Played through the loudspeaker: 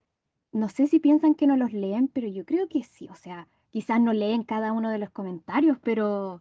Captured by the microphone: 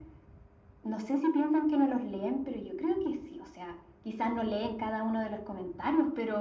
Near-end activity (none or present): none